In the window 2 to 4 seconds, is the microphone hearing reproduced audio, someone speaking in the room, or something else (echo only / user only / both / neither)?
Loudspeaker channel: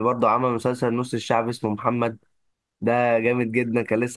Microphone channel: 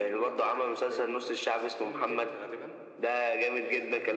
both